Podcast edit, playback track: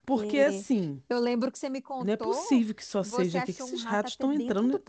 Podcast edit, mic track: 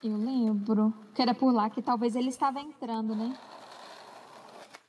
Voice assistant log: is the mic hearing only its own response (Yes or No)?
No